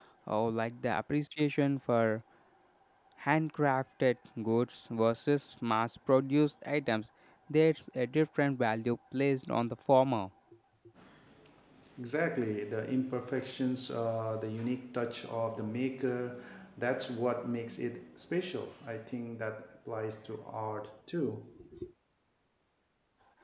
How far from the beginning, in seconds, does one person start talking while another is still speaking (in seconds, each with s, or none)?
none